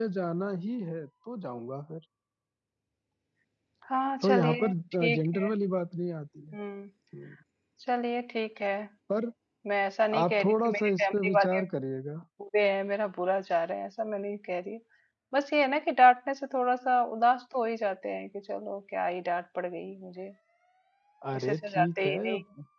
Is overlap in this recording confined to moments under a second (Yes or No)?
No